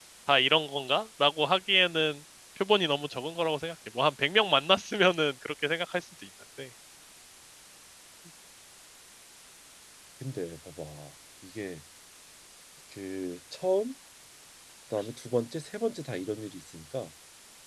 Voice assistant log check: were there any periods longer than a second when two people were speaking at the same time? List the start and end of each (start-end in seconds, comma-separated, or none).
none